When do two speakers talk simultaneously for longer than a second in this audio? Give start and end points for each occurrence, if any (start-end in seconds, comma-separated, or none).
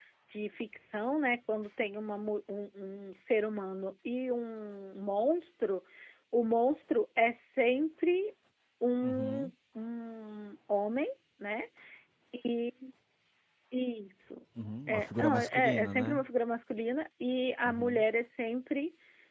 14.9-16.2